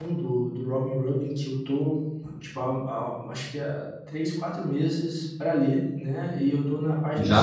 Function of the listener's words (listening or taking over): taking over